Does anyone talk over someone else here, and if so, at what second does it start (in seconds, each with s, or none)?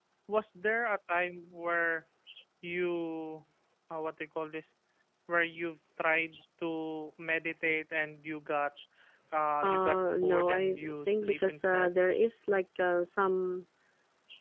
9.6 s